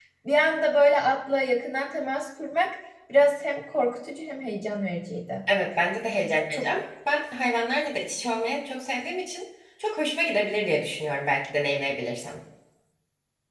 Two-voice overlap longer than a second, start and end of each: none

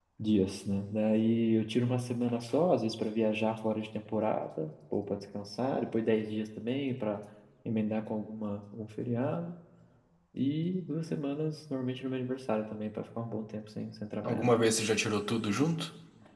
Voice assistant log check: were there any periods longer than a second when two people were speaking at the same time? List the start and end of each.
none

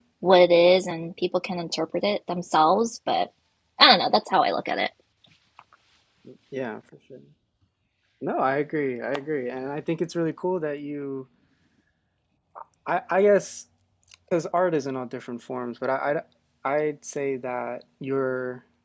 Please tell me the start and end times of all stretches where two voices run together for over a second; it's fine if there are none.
none

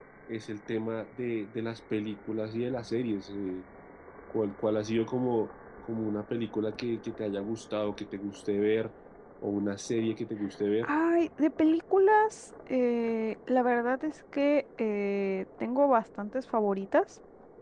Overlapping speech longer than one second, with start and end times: none

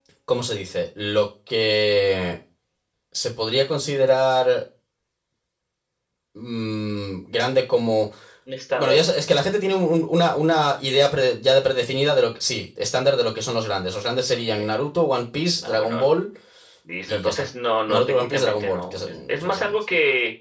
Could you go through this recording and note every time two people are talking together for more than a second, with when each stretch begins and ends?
17.9-19.8

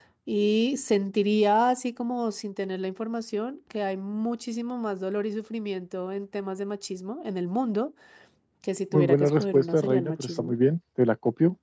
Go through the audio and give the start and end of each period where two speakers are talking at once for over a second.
8.9-10.5

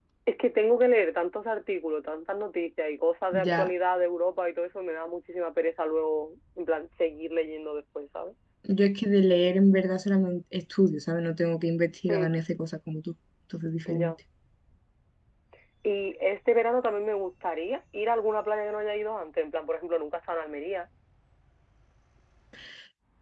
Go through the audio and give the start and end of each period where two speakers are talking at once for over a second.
none

